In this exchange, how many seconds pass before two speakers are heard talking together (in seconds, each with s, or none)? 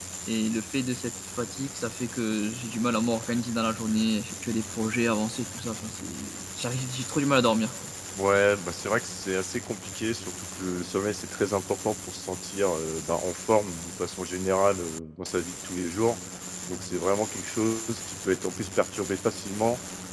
none